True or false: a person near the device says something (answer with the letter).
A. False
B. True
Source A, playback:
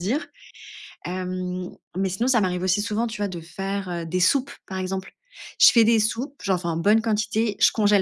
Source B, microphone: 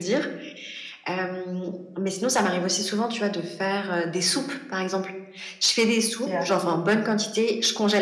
B